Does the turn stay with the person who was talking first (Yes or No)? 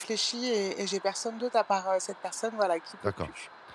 No